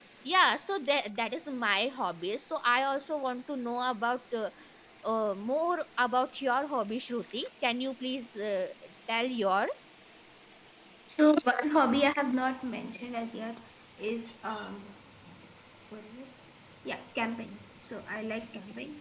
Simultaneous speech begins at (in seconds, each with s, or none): none